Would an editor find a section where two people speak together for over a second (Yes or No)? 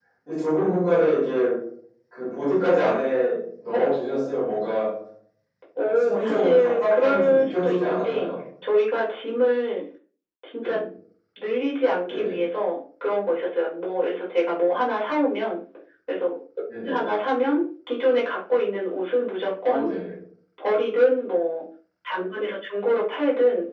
Yes